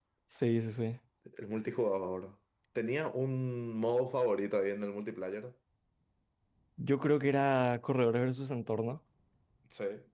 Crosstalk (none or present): none